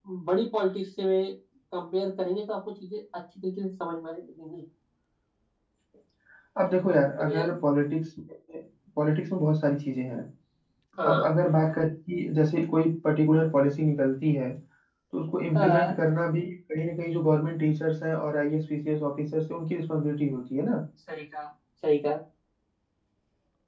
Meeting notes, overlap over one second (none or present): none